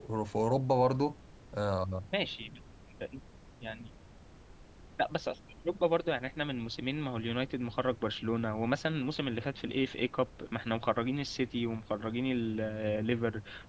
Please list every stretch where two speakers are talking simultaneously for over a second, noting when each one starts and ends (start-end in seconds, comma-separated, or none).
none